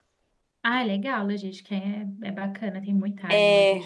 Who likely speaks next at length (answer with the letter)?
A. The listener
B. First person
A